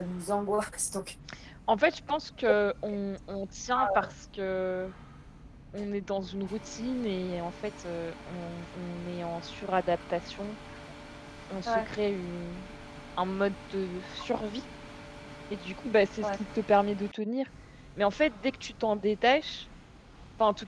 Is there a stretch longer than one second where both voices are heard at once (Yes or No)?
No